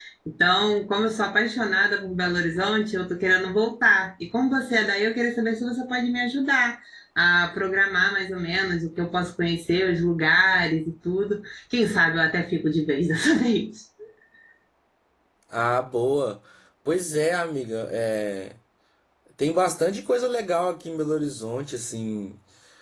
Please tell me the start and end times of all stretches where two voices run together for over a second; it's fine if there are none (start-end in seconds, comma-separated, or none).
none